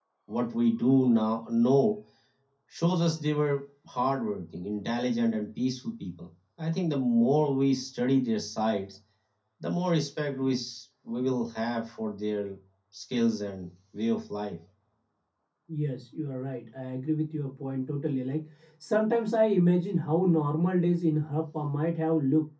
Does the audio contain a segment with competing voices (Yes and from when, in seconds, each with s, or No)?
No